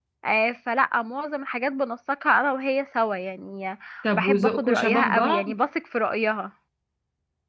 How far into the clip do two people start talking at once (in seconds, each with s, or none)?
4.1 s